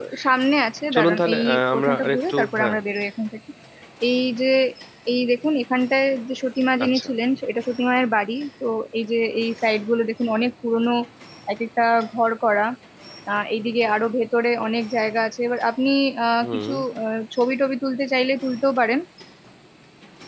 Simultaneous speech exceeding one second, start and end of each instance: 0.9-2.8

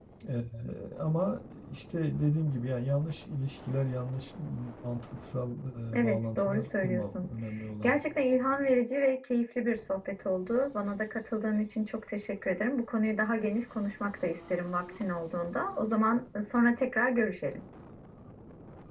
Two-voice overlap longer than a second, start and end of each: 6.0-7.3

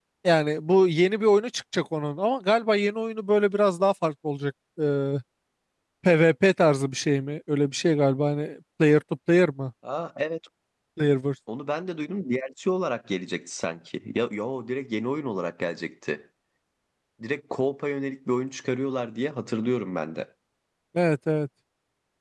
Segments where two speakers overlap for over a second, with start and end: none

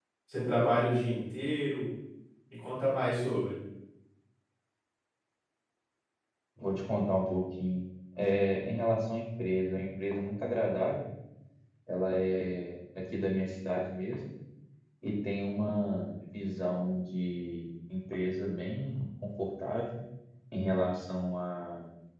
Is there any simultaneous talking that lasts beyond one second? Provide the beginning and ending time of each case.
none

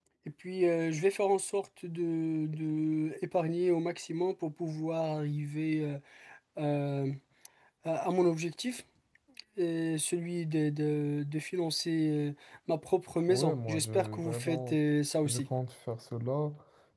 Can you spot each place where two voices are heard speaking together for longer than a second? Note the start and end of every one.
13.3-14.8

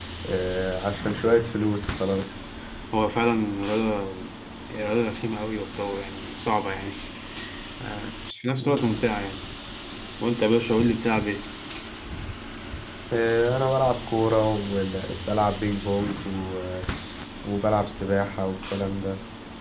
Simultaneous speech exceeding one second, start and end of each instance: none

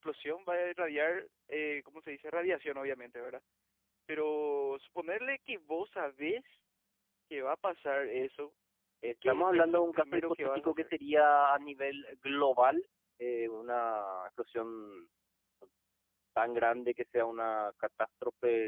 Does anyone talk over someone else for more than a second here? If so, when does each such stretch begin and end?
9.3-10.9

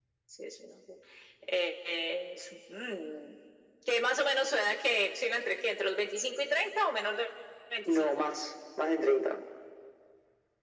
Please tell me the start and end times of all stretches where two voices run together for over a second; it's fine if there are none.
none

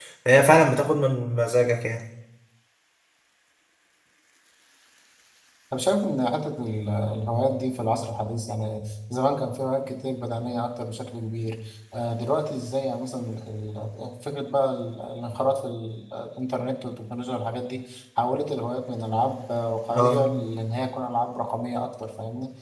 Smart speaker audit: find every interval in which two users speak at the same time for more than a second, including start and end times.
none

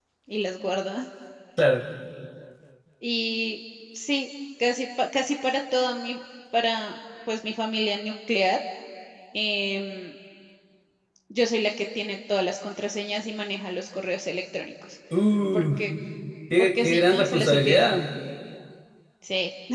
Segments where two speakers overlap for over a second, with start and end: 16.6-17.9

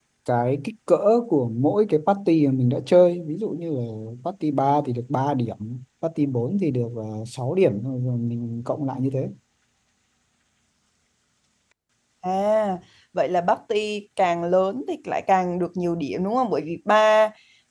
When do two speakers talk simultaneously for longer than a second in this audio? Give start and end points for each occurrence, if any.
none

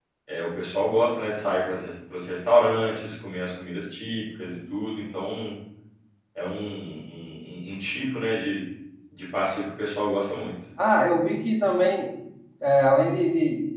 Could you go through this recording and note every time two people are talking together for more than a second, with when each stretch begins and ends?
none

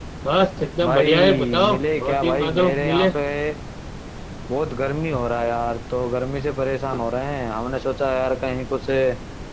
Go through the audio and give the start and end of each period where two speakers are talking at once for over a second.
0.8-3.1

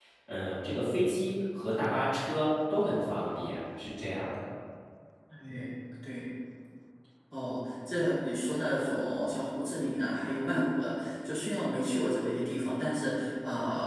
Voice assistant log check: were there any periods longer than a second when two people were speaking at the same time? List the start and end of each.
none

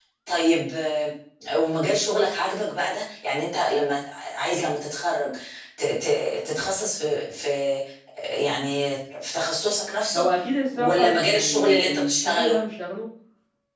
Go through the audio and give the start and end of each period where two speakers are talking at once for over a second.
10.7-12.6

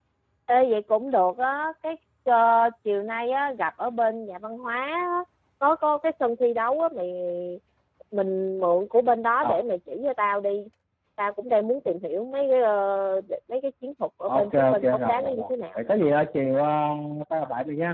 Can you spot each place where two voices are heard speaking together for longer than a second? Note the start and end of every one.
14.3-15.8

